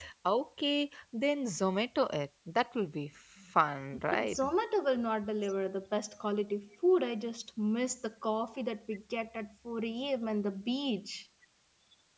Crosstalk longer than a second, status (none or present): none